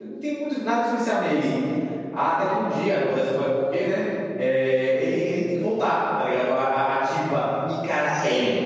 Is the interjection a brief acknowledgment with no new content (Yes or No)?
Yes